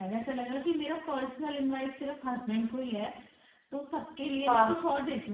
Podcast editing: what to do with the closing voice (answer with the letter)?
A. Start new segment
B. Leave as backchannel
B